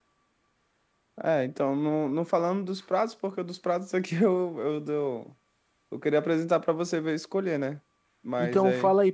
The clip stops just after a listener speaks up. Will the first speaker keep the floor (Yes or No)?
No